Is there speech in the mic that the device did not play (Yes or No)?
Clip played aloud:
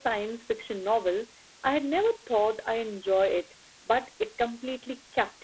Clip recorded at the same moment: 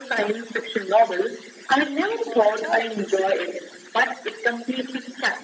Yes